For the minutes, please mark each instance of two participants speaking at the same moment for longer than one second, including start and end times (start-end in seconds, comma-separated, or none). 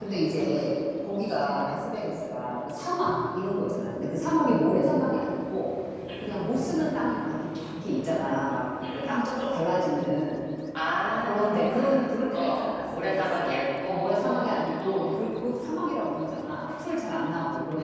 11.1-15.2